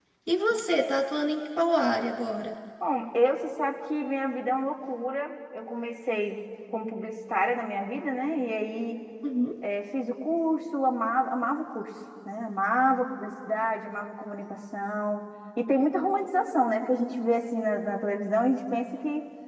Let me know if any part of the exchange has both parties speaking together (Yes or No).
No